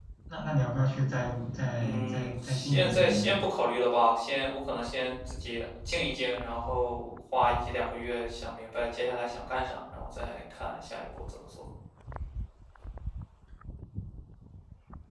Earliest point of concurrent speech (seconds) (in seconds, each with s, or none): 1.8 s